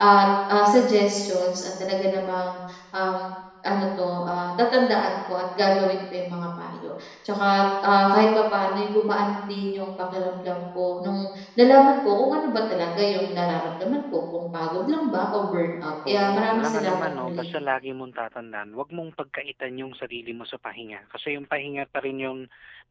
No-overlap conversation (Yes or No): No